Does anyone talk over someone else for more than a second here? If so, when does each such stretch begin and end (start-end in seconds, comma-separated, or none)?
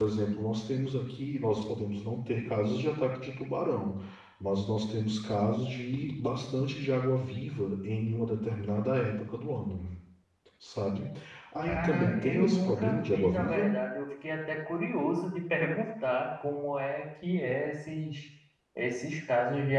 11.7-13.7